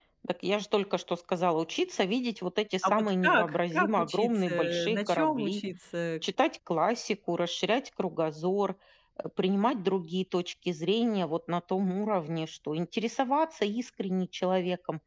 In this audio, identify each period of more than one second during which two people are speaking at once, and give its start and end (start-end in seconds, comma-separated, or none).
2.8-5.6